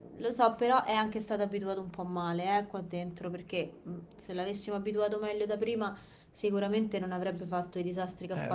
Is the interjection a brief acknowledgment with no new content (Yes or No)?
No